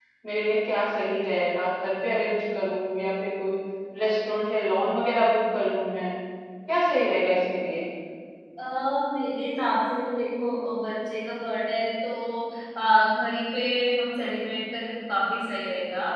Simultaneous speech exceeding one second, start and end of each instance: none

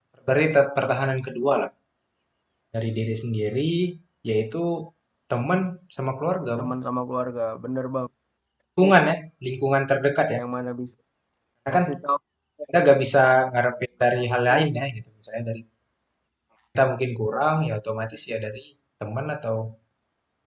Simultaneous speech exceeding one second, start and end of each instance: none

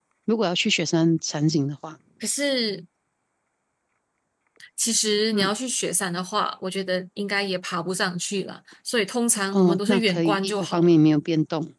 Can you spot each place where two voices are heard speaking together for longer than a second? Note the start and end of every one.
9.5-10.9

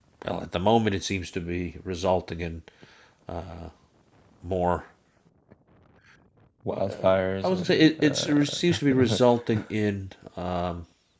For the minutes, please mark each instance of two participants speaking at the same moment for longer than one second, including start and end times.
7.4-9.2

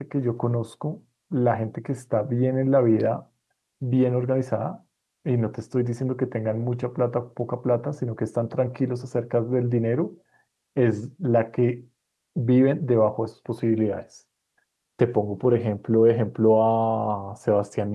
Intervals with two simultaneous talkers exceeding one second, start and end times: none

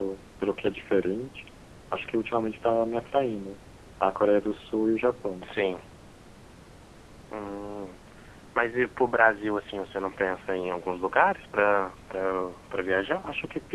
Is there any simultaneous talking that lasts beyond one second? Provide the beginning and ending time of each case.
none

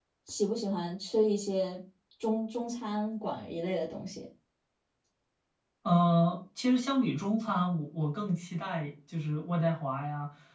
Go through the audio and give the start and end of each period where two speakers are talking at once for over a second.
none

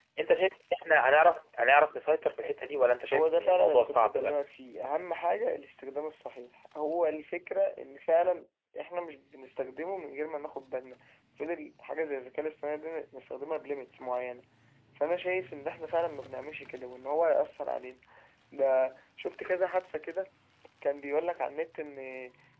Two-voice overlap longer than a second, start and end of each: 3.1-4.3

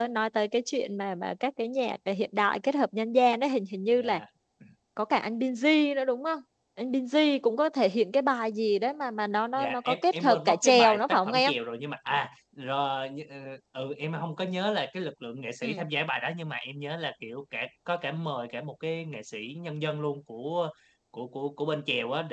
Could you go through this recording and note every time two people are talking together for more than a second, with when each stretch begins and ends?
9.6-11.5

